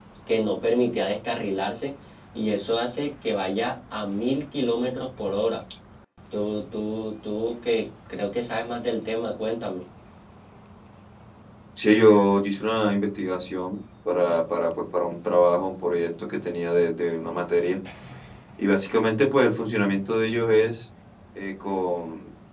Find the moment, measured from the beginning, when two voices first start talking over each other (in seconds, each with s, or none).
none